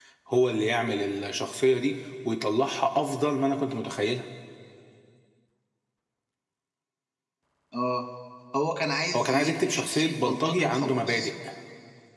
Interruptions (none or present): present